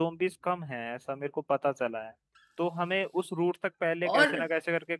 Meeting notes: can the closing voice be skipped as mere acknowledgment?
Yes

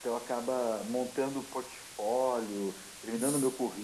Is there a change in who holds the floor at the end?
Yes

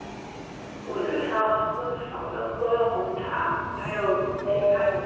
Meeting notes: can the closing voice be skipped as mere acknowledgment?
Yes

